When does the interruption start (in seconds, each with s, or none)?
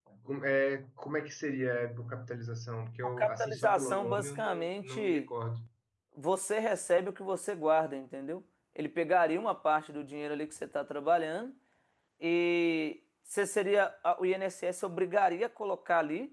3.0 s